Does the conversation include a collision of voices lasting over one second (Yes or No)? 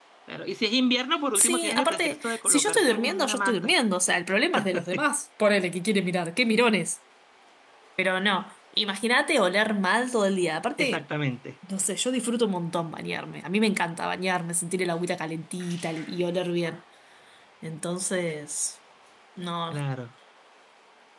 Yes